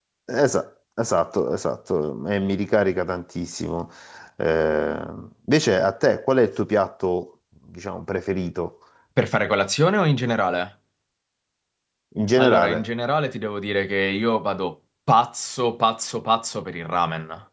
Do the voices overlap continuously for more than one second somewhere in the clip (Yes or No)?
No